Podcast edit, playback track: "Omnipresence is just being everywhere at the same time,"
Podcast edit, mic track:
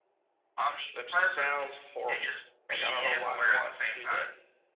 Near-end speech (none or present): present